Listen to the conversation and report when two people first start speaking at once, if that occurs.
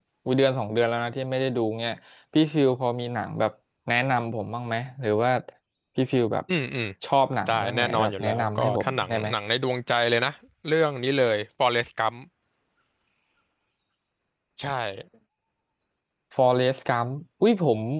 7.5 s

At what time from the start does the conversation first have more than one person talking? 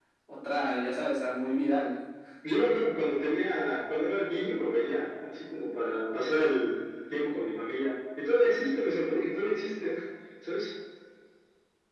none

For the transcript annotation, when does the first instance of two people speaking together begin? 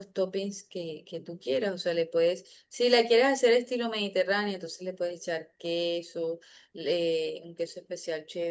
none

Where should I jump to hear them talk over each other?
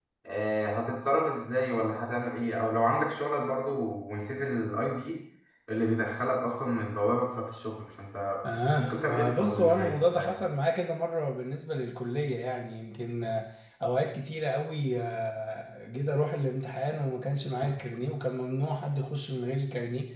8.8 s

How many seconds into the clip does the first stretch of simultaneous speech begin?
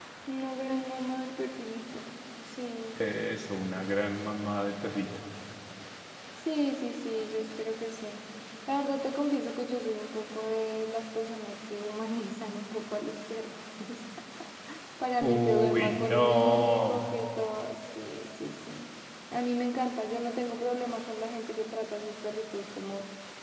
15.2 s

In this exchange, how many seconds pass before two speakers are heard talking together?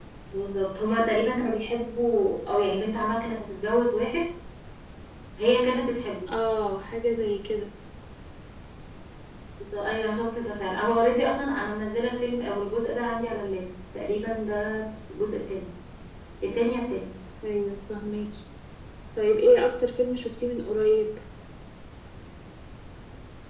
none

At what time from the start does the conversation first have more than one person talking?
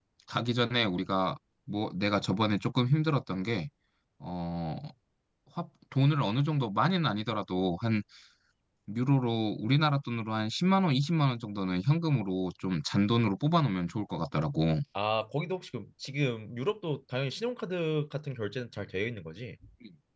none

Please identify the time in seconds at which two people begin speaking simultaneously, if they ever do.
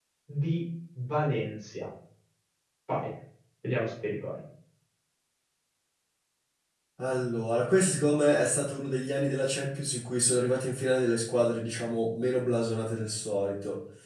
none

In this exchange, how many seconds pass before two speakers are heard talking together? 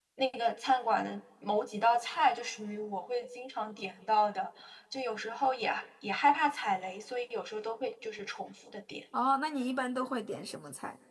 none

